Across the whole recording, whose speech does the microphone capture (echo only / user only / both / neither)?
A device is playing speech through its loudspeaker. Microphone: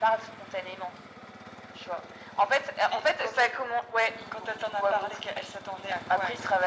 echo only